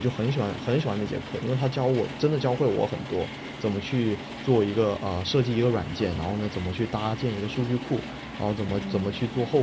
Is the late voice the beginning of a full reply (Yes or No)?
No